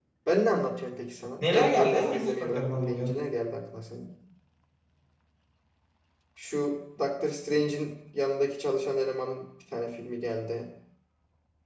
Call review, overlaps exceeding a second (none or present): present